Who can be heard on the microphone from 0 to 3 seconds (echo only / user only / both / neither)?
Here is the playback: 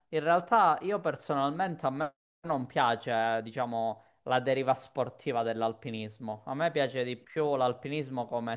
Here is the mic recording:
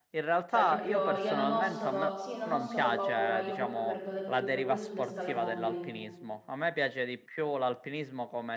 both